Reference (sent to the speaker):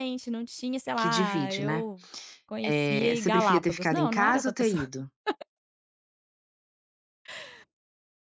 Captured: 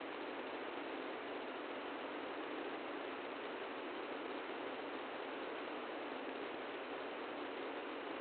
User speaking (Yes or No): No